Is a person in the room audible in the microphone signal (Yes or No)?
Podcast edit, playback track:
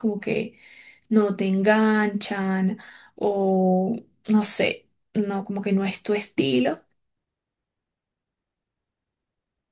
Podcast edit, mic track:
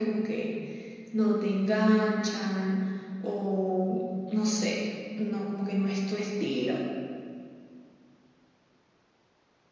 No